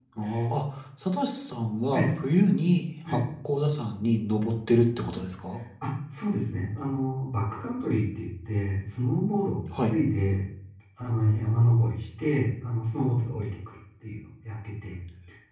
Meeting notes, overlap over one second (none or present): none